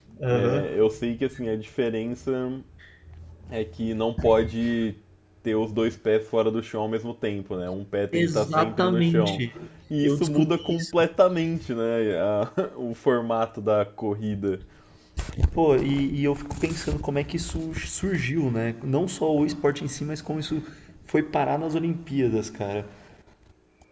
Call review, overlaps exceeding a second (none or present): present